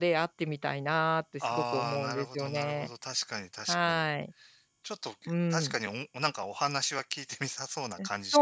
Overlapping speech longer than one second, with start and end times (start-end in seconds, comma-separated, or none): 1.4-2.9